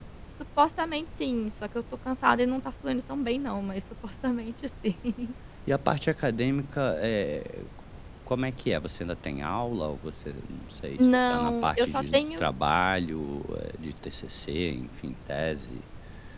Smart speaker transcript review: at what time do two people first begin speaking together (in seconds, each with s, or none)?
11.0 s